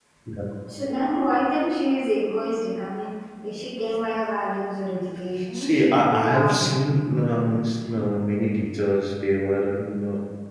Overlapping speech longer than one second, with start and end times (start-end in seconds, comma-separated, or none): 5.5-6.8